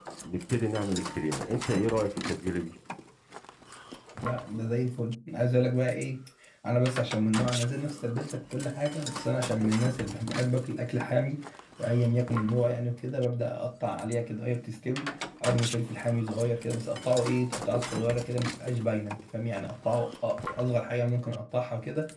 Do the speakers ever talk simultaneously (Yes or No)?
No